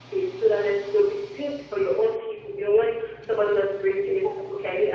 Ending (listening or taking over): listening